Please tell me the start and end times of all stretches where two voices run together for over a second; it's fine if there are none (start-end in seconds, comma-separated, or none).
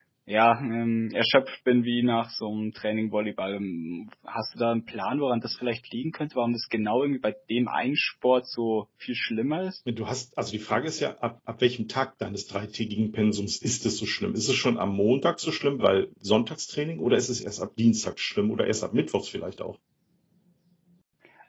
none